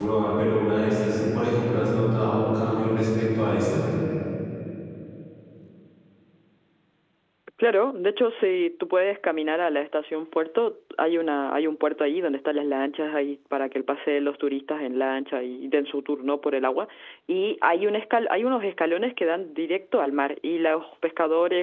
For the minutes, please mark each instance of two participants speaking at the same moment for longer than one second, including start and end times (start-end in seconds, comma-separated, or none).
none